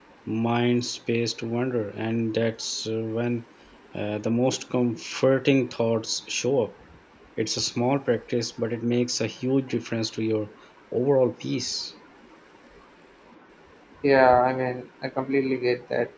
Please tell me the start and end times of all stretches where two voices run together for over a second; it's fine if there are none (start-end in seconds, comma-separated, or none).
none